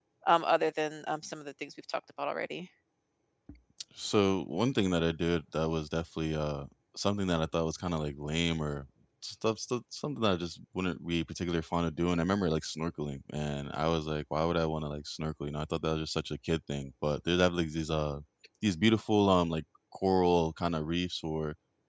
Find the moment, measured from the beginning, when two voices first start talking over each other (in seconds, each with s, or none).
none